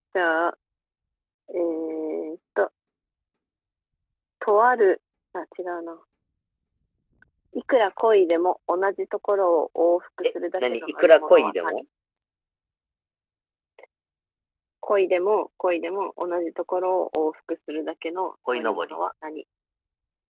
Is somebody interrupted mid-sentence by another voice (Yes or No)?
Yes